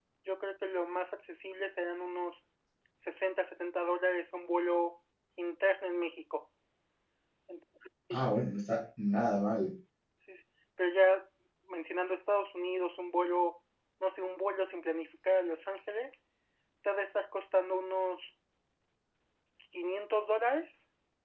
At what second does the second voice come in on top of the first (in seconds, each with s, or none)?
none